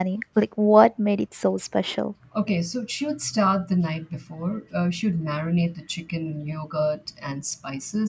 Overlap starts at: none

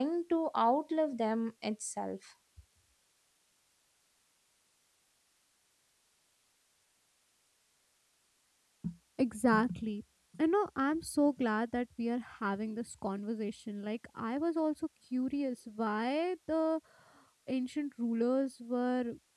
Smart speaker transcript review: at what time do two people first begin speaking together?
none

